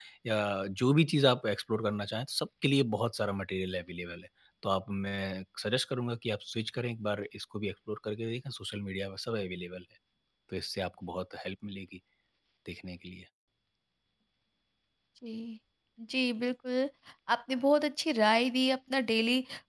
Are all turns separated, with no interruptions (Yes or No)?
Yes